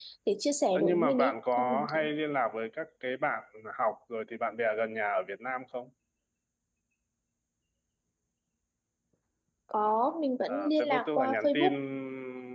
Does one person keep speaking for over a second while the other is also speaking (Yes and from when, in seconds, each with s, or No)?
Yes, from 0.8 s